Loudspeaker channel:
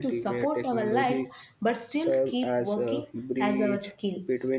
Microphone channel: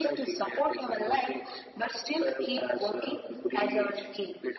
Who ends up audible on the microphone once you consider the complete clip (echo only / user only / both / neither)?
echo only